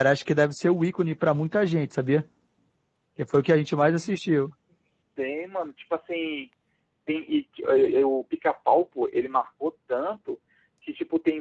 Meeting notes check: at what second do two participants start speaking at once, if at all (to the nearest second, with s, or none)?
none